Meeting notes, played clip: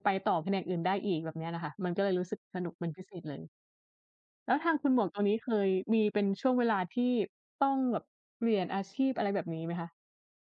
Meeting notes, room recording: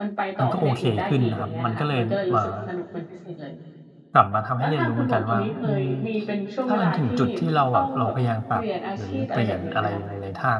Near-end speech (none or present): present